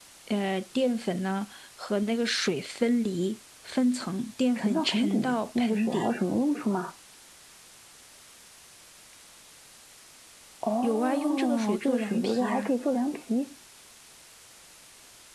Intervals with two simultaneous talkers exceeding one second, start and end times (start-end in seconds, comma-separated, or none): 4.6-6.1, 10.8-12.7